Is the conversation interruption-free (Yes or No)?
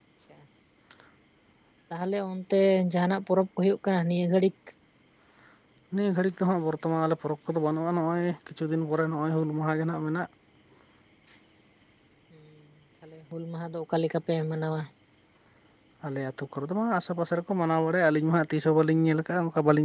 Yes